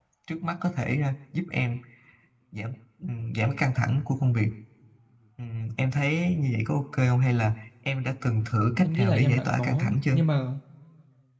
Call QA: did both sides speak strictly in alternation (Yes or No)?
No